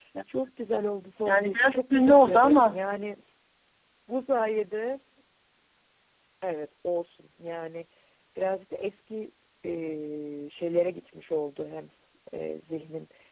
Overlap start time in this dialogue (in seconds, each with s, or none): 1.2 s